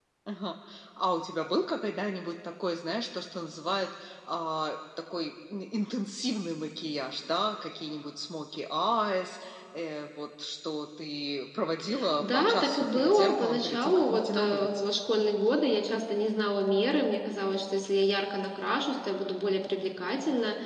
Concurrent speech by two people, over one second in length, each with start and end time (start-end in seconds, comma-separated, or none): 12.2-14.8